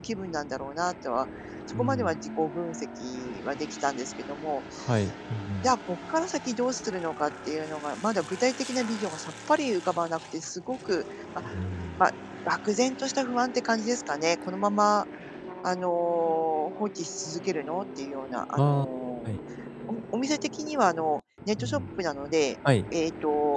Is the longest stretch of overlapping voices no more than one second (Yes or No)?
Yes